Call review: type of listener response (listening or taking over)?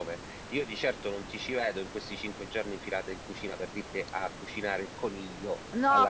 taking over